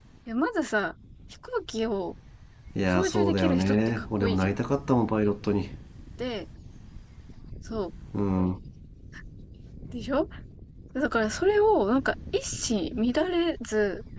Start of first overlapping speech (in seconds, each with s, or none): 2.9 s